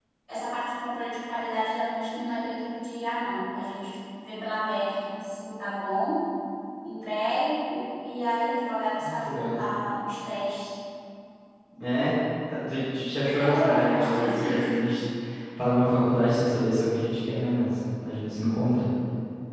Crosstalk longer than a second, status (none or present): present